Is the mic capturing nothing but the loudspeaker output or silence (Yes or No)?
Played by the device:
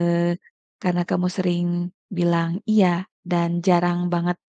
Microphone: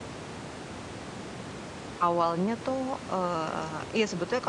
No